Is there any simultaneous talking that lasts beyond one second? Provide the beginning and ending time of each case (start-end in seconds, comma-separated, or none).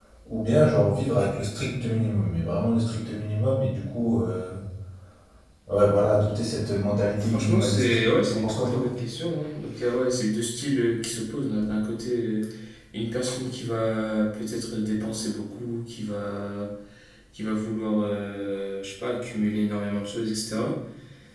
7.2-8.9